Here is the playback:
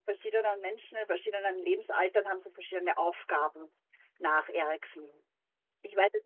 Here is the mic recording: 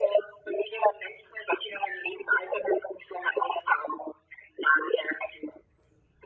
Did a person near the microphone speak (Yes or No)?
No